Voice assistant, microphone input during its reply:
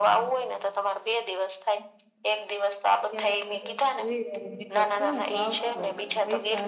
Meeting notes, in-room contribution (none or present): present